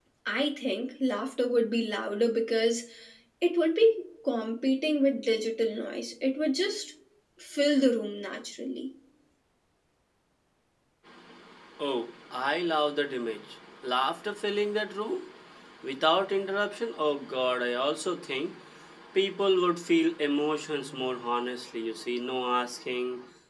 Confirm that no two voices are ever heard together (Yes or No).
Yes